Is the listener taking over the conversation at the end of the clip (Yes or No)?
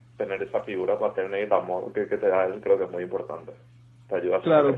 Yes